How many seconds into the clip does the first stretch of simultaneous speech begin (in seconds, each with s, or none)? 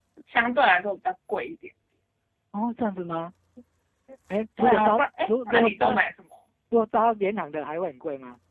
4.6 s